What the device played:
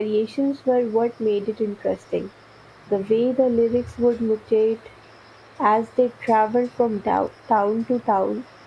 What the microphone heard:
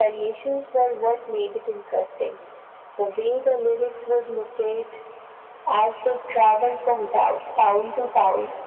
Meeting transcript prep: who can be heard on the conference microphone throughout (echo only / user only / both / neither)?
echo only